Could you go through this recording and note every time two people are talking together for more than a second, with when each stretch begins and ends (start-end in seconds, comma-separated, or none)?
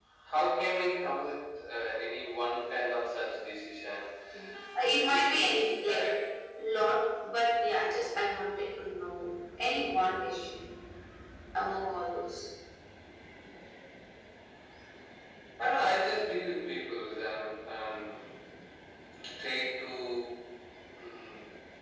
4.8-6.0